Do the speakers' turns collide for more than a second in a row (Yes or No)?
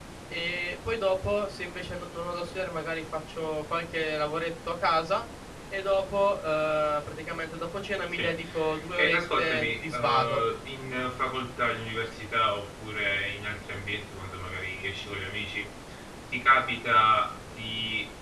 Yes